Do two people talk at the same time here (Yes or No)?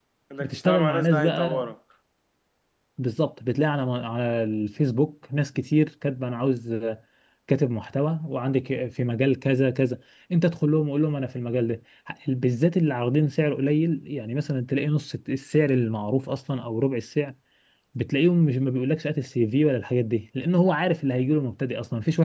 Yes